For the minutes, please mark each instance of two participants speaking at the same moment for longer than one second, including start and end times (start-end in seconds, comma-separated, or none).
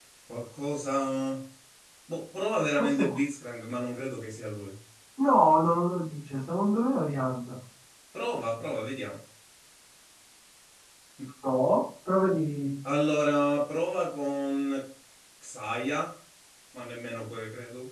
none